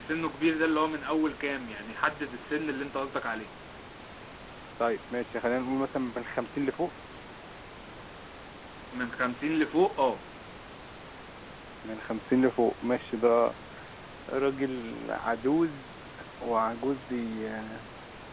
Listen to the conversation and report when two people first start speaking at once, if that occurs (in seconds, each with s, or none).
none